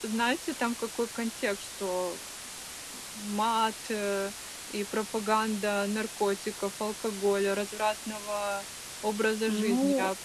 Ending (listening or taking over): taking over